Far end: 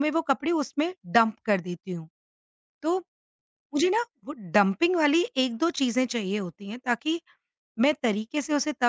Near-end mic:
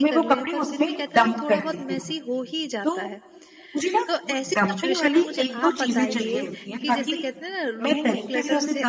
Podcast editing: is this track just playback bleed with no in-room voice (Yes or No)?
No